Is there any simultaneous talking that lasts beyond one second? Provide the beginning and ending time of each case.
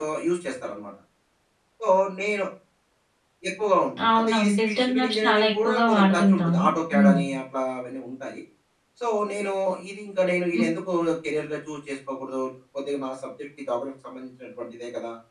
4.3-6.5

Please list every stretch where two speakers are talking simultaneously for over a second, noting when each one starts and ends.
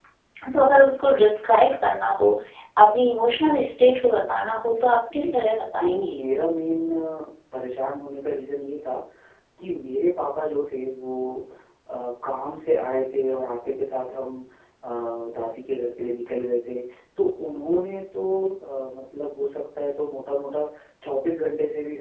none

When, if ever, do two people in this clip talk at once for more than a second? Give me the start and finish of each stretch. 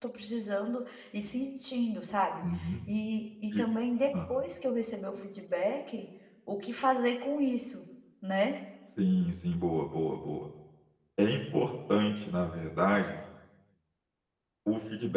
none

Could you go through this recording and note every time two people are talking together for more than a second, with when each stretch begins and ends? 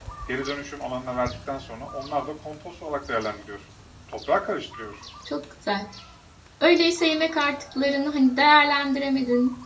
none

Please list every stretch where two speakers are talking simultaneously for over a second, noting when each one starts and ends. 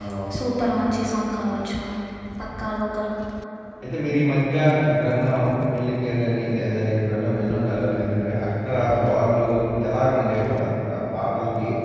none

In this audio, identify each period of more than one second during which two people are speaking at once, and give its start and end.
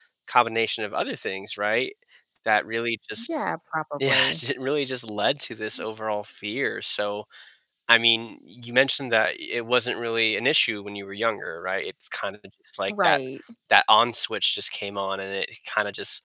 none

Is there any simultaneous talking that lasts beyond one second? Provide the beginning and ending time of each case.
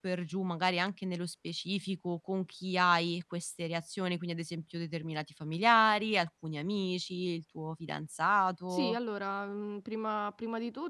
none

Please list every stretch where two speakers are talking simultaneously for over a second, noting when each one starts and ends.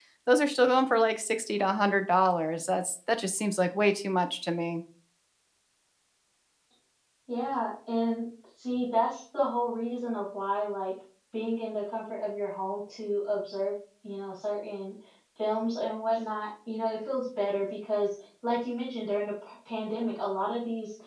none

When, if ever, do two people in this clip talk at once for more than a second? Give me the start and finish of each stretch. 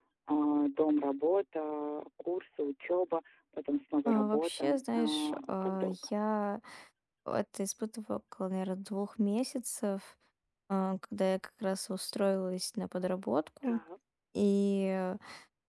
4.0-6.0

